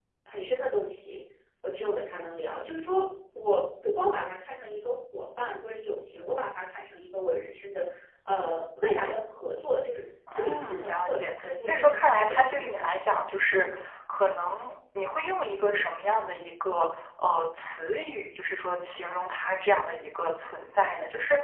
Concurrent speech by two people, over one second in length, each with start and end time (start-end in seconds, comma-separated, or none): 10.3-12.9